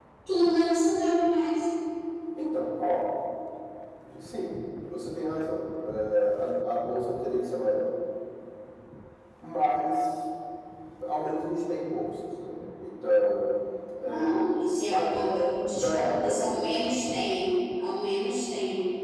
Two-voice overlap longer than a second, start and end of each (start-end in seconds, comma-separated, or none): 15.6-16.9